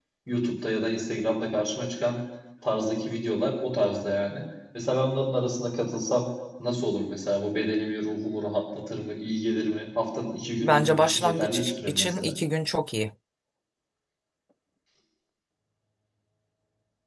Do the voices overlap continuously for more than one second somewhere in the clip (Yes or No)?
Yes